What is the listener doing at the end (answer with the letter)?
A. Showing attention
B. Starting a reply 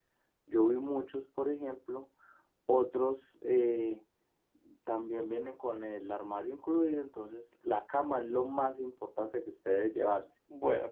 B